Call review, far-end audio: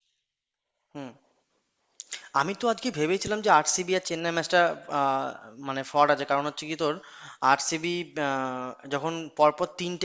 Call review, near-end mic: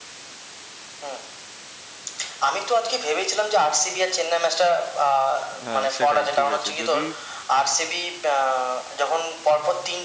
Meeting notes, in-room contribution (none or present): present